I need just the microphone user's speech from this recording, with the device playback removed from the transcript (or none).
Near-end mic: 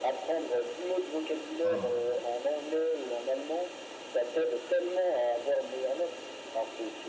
Enfin,